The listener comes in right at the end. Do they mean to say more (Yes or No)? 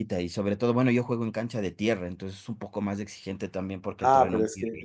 Yes